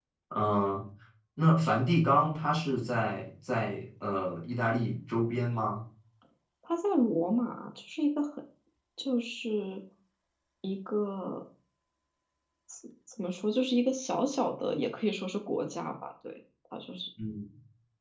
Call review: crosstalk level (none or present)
none